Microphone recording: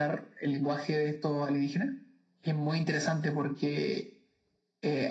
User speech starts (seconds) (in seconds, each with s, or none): none